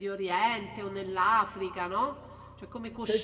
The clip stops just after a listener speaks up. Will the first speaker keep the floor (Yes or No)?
No